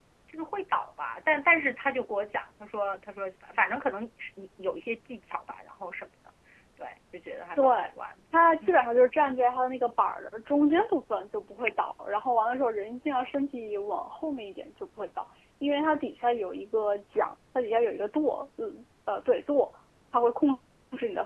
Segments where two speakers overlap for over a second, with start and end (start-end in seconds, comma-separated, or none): none